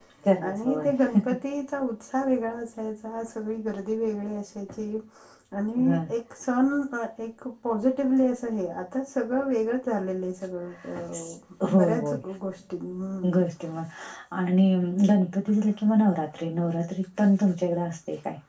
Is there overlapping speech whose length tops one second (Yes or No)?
No